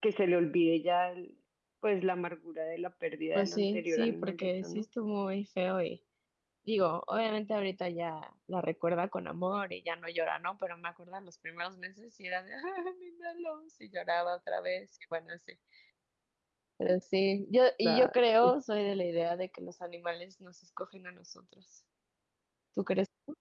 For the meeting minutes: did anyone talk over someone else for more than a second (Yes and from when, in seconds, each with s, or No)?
Yes, from 3.4 s